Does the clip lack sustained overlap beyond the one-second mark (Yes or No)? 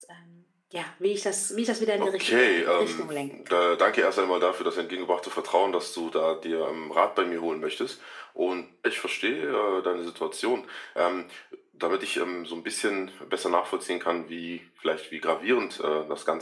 No